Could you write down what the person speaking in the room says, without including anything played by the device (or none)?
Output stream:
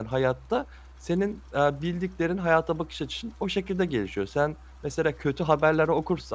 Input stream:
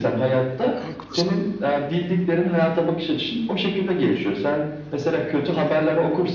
Haklısın.